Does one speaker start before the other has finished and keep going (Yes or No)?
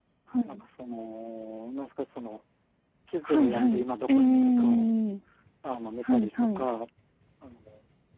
Yes